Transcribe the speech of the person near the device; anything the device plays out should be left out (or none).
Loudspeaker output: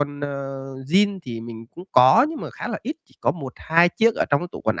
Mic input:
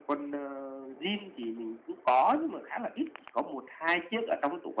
none